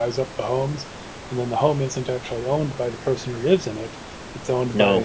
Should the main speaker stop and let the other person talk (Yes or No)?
No